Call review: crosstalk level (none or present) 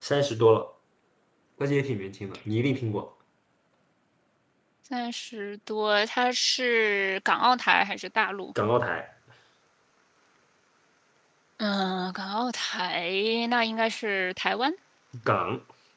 none